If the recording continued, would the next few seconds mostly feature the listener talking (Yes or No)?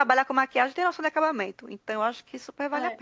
Yes